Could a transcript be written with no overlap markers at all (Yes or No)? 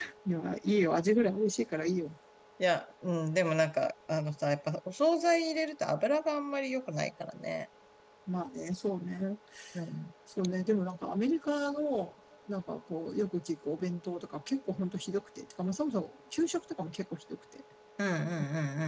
Yes